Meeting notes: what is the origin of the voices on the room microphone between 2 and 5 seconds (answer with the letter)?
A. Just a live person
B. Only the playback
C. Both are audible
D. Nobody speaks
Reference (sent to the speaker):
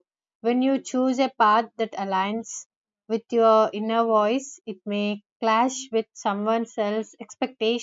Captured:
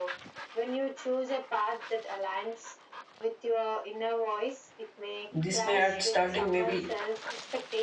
B